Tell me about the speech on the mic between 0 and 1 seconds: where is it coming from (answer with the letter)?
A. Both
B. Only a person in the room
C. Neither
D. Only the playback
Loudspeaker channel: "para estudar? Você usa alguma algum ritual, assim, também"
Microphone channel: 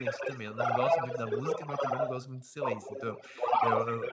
A